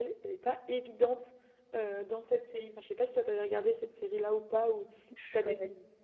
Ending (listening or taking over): taking over